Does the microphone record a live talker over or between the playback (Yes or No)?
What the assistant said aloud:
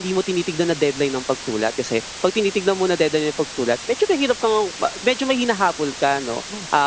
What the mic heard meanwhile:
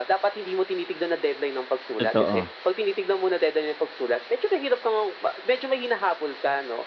Yes